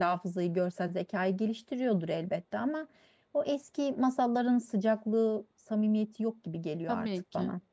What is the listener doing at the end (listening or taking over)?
taking over